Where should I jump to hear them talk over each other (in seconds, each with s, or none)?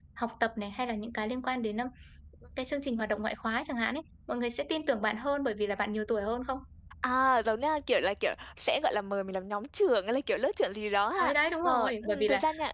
11.2 s